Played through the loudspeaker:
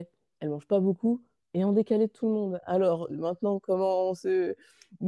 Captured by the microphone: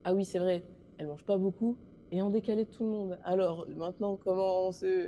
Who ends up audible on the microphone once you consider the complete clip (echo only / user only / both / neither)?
echo only